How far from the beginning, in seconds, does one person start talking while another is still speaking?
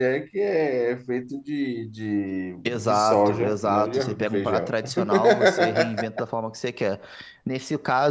2.6 s

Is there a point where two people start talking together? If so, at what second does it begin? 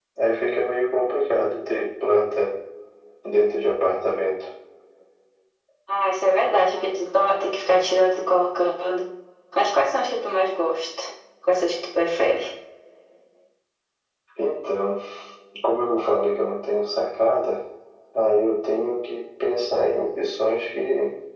none

